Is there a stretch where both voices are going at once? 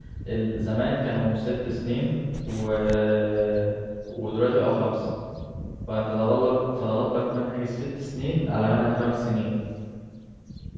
No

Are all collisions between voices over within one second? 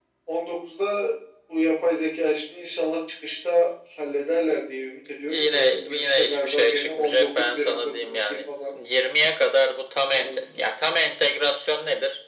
No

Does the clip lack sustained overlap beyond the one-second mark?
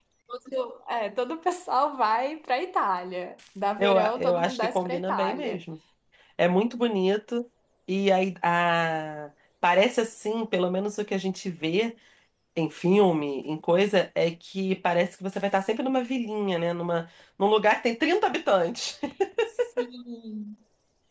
No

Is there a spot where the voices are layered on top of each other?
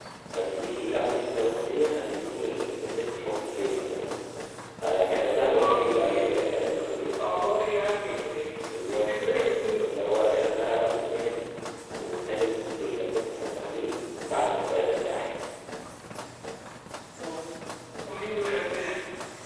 Yes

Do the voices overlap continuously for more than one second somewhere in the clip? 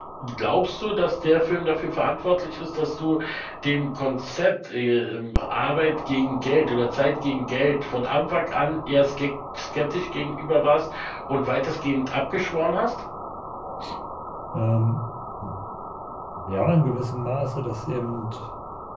No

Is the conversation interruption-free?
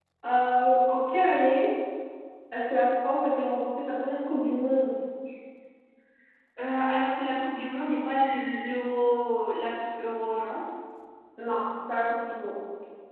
Yes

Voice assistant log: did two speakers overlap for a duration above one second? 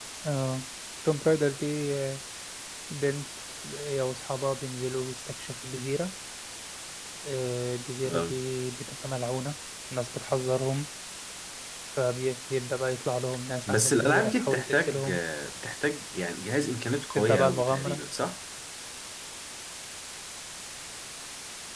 Yes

